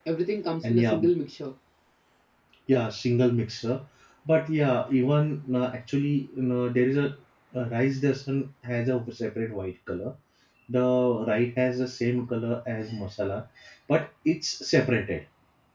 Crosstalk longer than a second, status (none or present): none